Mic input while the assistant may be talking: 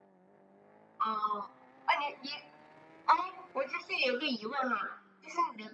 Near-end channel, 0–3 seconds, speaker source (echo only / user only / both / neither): echo only